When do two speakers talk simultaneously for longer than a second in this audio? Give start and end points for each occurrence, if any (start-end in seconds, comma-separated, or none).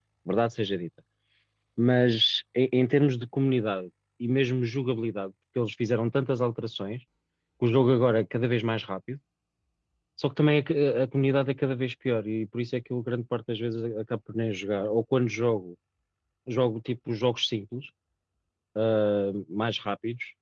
none